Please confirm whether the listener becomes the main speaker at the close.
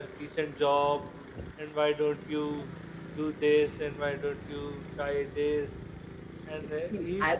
Yes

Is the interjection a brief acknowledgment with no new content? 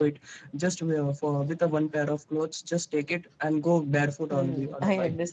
No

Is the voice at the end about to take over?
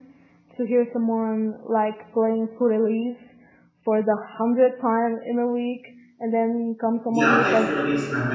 Yes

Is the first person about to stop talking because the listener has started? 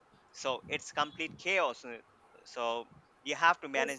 Yes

